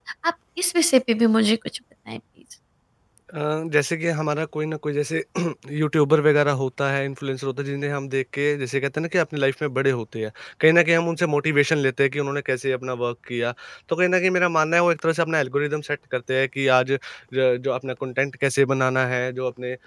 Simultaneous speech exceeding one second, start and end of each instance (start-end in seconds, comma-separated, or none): none